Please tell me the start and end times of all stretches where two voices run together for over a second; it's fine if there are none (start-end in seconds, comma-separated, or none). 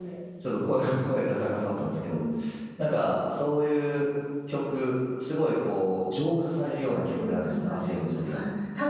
6.9-8.4